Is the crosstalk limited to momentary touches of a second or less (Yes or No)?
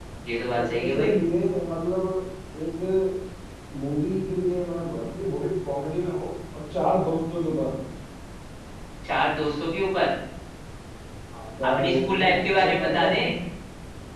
No